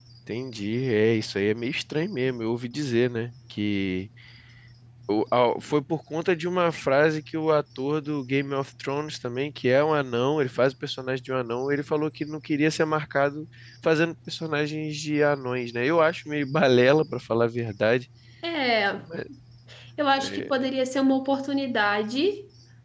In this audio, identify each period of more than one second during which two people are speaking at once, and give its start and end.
none

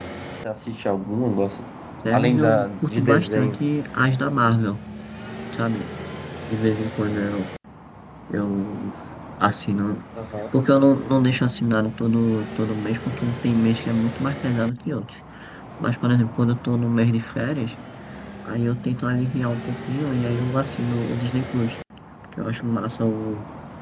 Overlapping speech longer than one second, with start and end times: 2.1-3.6

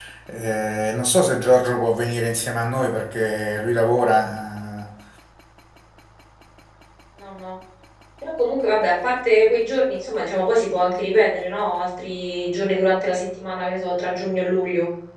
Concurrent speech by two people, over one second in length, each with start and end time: none

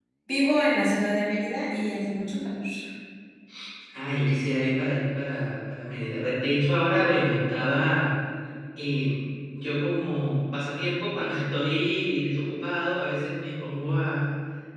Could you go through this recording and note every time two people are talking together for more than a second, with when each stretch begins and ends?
none

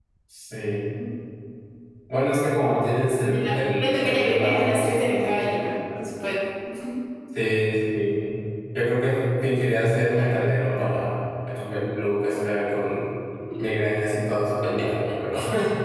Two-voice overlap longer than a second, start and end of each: 3.2-5.6

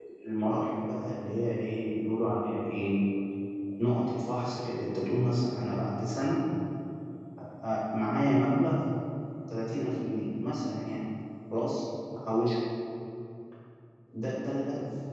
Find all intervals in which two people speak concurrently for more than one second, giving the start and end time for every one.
none

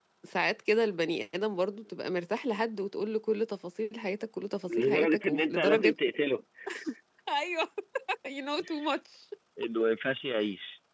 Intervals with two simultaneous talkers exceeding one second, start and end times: 4.7-5.9

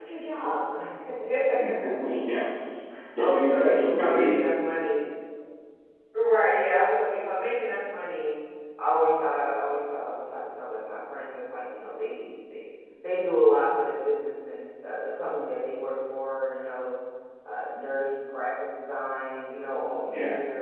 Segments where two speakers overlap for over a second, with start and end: 3.2-4.4

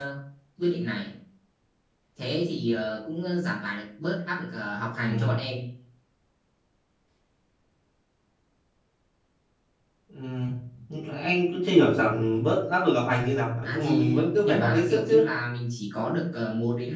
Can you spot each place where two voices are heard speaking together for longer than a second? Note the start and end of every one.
13.6-15.2

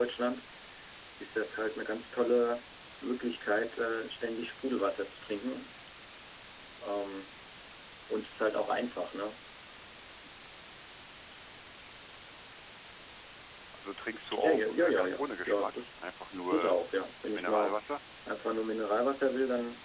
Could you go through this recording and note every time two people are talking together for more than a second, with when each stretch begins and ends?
14.4-15.7

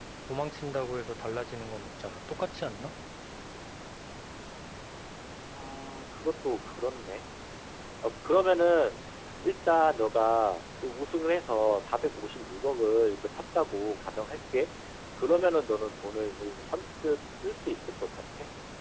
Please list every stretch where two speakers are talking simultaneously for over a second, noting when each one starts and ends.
none

